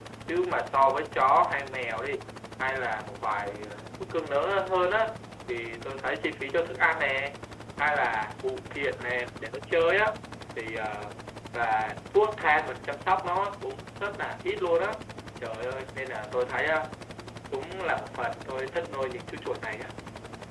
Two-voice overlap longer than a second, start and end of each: none

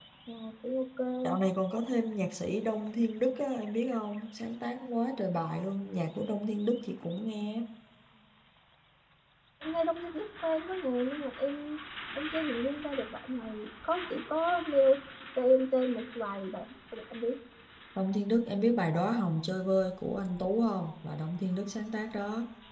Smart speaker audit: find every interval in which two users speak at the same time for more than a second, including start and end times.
none

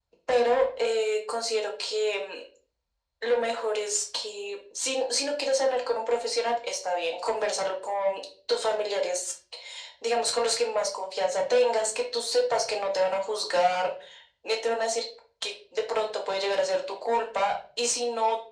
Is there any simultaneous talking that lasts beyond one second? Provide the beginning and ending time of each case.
none

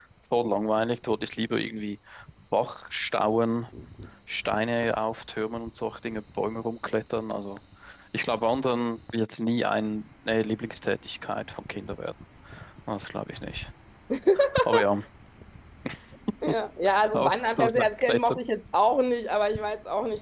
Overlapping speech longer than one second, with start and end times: 17.1-18.4

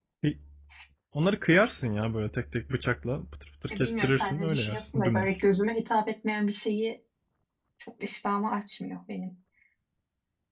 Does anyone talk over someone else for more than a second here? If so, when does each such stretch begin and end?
3.7-5.4

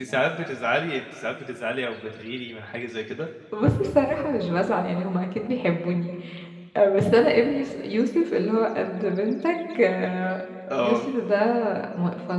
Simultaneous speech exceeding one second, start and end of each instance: none

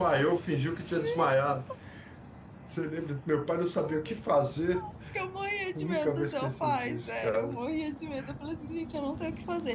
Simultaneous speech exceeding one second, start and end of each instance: 5.8-7.6

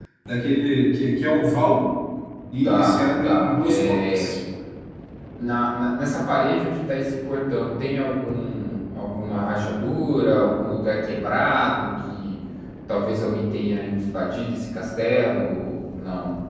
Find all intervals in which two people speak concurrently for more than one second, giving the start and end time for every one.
2.6-4.3

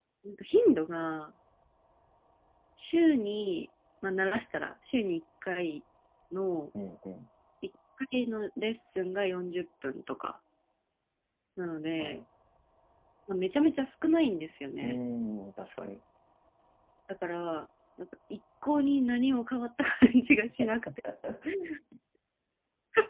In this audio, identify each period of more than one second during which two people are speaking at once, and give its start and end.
none

